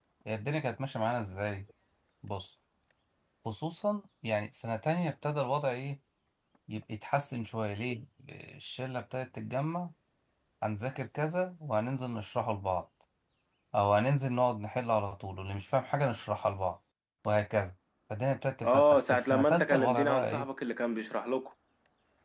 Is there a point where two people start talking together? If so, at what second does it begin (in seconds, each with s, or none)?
18.6 s